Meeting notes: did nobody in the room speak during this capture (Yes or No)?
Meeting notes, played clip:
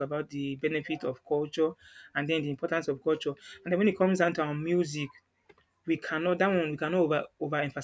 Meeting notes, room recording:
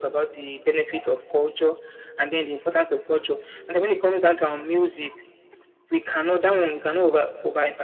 Yes